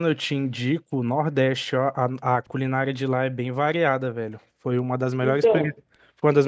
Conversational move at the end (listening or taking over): listening